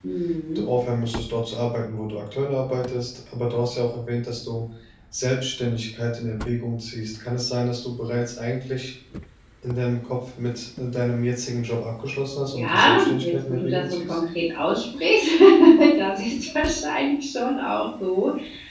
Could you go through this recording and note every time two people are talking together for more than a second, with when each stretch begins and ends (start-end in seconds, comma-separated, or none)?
12.5-14.2